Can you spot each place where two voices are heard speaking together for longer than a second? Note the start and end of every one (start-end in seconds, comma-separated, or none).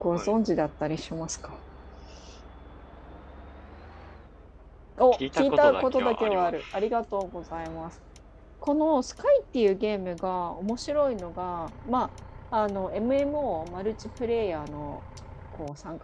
5.1-6.6